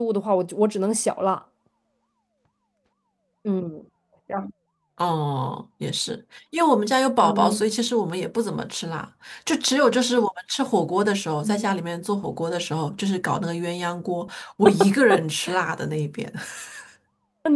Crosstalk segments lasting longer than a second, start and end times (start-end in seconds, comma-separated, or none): none